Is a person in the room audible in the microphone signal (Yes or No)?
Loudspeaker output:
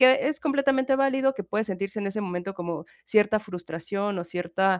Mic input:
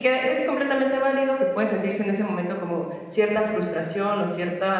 No